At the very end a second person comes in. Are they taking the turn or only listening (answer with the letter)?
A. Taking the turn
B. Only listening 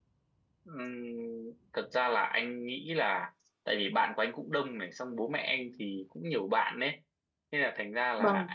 B